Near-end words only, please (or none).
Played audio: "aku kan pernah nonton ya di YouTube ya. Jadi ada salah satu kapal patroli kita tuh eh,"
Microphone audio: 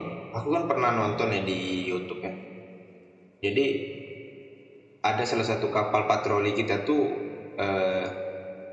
none